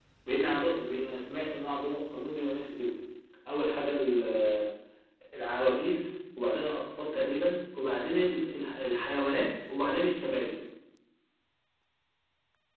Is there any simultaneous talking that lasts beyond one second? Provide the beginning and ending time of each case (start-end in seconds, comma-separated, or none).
none